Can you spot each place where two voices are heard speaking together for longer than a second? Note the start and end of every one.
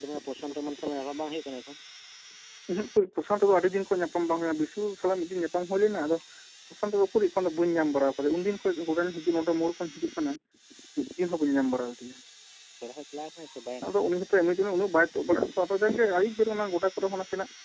none

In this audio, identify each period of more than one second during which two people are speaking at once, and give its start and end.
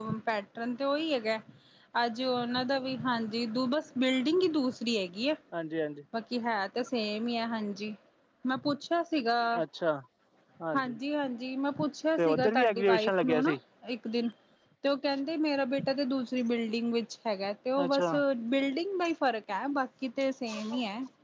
12.2-13.5

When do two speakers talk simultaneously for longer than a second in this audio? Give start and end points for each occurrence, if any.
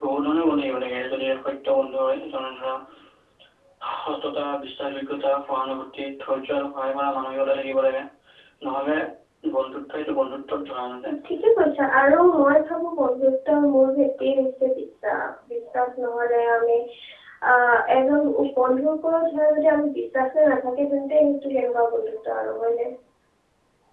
none

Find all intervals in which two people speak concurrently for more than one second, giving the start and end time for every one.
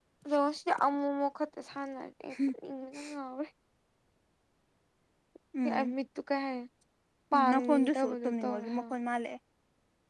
7.3-8.8

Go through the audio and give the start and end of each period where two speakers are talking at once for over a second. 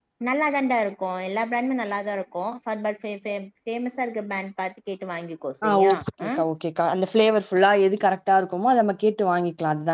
none

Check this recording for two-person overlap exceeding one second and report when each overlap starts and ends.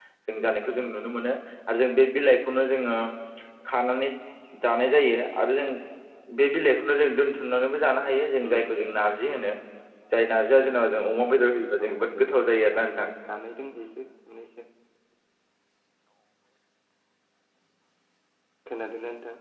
11.6-12.9

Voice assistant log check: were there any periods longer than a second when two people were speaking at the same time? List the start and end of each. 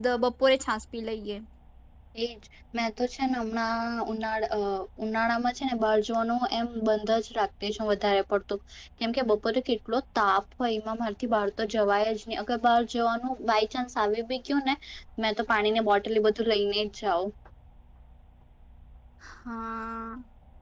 none

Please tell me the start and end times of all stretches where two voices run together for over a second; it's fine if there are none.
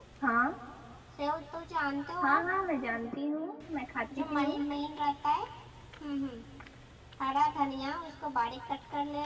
none

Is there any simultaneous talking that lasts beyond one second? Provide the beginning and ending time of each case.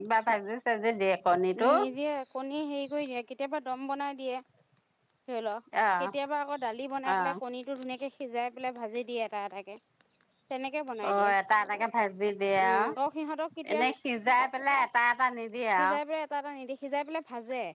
none

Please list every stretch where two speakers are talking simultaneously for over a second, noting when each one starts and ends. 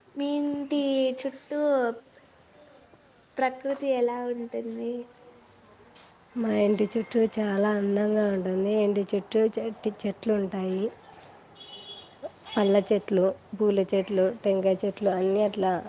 none

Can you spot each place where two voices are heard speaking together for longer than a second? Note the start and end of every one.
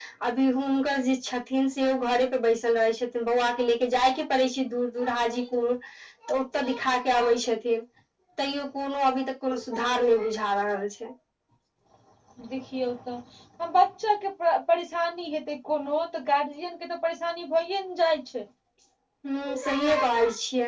none

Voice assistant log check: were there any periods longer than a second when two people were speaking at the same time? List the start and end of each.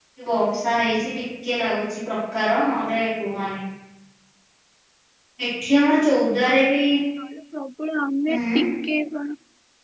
none

